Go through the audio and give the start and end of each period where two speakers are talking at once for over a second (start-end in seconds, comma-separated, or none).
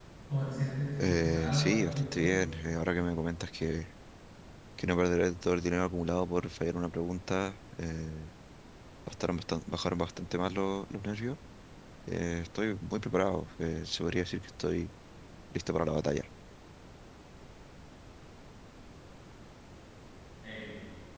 1.0-2.3